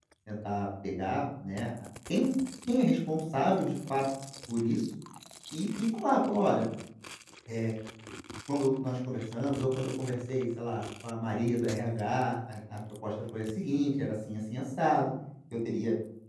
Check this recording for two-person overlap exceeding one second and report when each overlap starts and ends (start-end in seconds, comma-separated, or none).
none